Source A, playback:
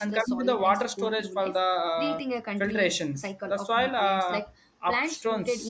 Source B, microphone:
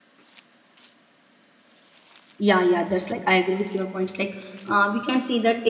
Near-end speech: present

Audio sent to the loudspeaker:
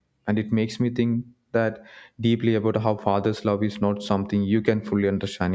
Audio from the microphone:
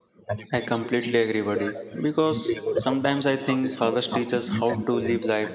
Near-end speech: present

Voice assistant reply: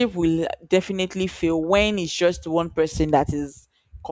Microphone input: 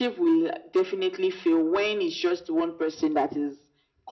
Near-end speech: none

